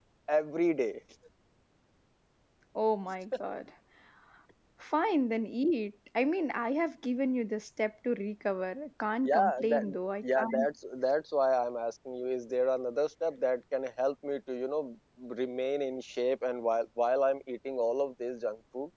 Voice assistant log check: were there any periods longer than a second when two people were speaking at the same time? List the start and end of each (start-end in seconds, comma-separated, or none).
9.2-10.7